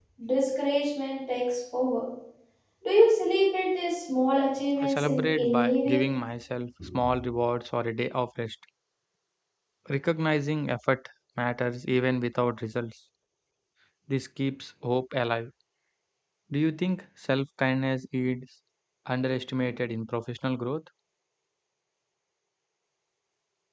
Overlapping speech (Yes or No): Yes